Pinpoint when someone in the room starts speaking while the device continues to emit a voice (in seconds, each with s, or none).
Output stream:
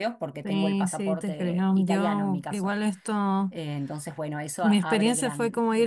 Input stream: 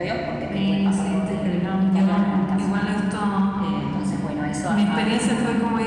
none